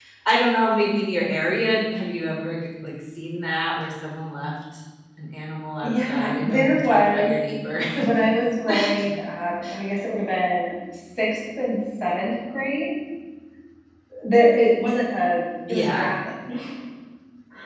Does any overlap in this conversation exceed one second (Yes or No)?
Yes